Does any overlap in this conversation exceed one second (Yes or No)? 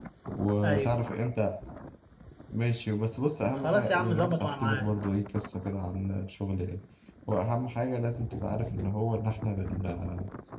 Yes